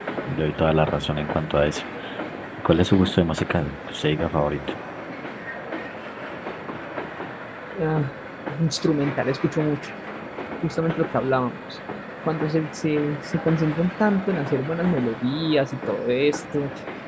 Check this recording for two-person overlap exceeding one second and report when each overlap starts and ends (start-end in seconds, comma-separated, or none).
none